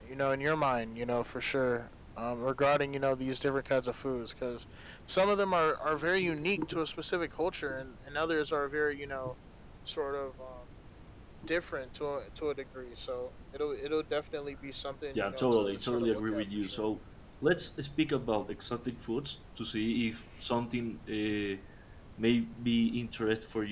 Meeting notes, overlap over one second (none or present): present